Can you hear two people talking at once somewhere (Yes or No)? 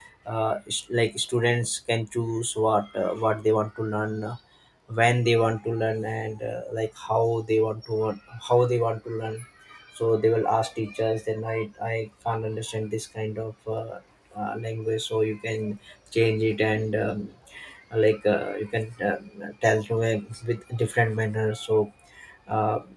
No